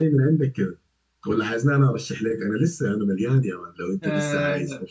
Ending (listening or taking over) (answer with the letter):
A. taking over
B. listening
A